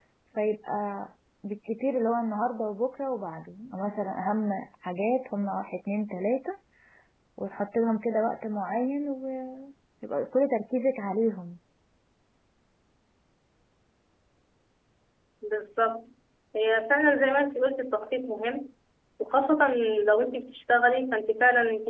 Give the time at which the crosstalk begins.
none

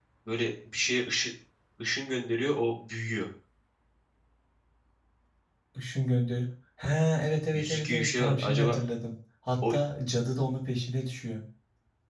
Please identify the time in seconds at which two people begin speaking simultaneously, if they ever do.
8 s

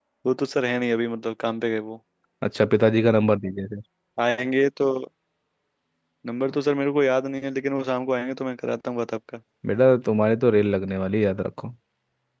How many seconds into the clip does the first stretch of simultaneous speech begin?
none

